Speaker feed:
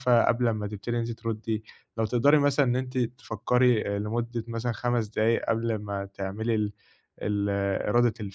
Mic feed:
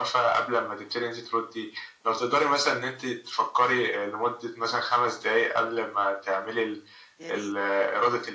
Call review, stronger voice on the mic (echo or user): echo